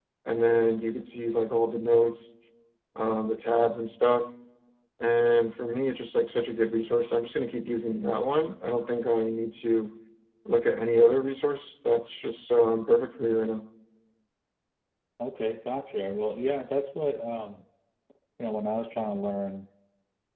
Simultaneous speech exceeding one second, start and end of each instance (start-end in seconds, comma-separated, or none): none